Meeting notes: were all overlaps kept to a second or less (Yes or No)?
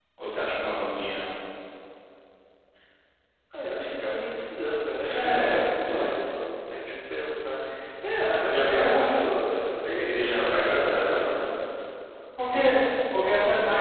No